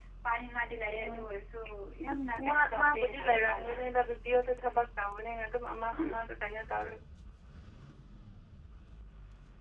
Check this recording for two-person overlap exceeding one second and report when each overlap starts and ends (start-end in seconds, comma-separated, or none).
2.5-3.7